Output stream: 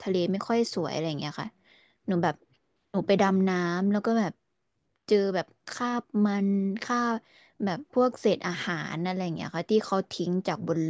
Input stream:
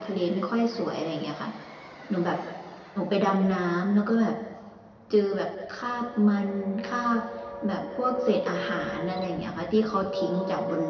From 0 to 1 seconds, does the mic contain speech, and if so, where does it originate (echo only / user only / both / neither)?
echo only